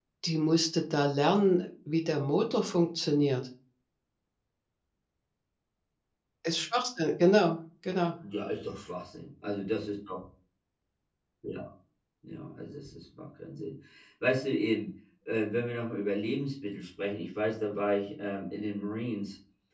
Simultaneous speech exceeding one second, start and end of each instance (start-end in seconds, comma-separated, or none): none